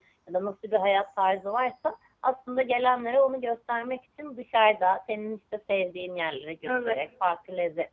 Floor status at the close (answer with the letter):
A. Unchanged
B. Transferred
A